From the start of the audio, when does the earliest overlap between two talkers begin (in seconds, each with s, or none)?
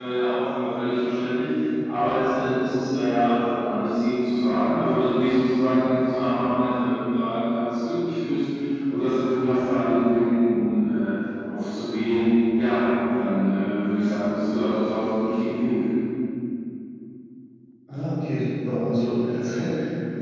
none